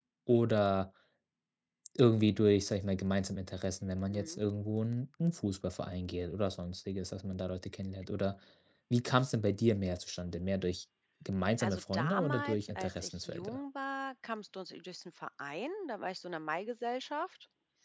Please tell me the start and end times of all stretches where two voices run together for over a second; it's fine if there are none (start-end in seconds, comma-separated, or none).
11.6-13.6